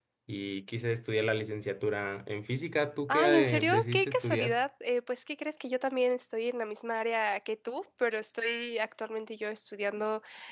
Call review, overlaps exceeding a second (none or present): present